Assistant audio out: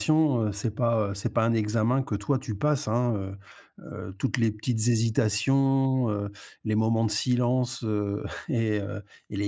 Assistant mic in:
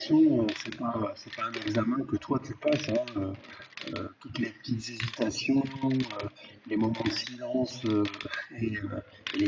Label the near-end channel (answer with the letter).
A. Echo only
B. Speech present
A